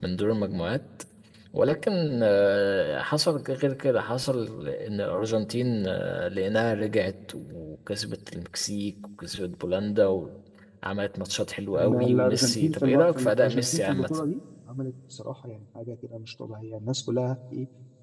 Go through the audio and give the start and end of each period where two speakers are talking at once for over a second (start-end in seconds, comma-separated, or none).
11.7-14.1